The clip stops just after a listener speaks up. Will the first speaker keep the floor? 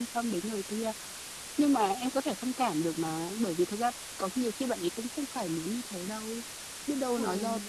Yes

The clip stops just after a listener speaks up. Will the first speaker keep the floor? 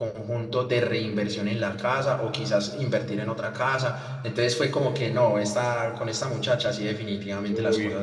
No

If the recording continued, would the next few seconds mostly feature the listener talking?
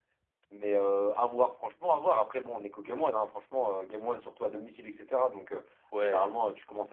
No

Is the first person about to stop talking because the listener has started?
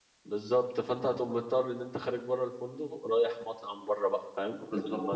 Yes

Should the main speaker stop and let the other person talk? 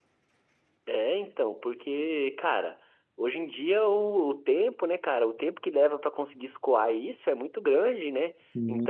No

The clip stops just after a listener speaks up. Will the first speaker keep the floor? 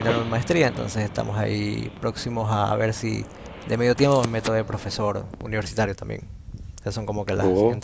Yes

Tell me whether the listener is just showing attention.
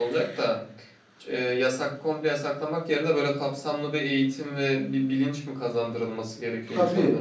No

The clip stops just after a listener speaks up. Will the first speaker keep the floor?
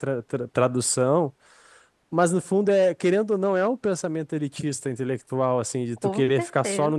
Yes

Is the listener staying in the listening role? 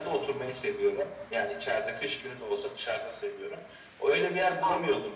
Yes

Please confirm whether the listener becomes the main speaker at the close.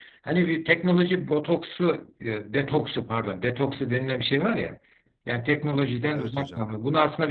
No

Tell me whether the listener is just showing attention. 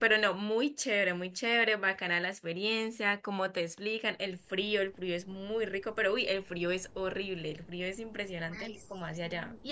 No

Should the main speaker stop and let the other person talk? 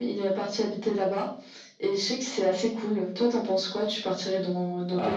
Yes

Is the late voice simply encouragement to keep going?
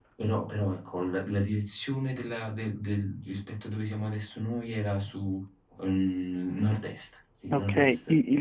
No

